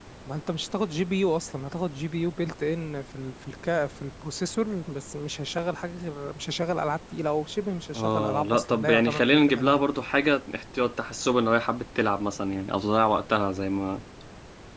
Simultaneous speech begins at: 7.9 s

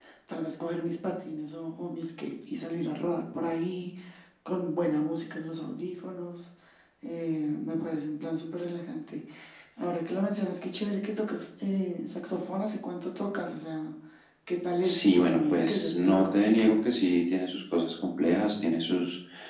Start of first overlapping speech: 14.8 s

